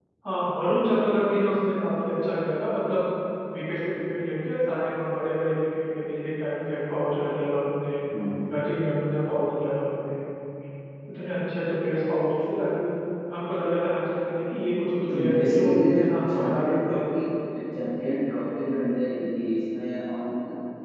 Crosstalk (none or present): present